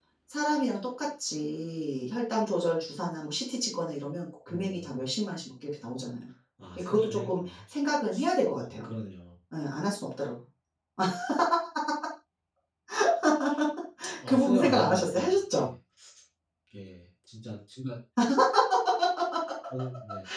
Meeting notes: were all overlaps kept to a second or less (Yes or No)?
No